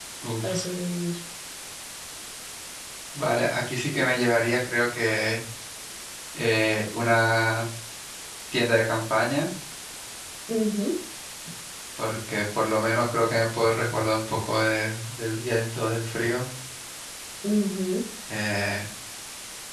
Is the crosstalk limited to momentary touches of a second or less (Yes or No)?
Yes